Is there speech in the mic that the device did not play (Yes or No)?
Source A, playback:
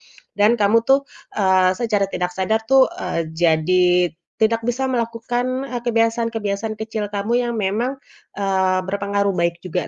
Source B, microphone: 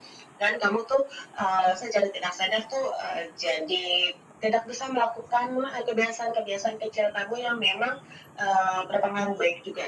No